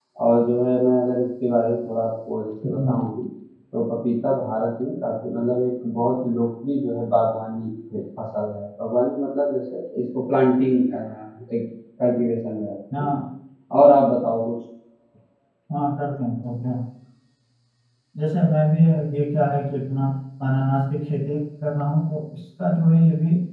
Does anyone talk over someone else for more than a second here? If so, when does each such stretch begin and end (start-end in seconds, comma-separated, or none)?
none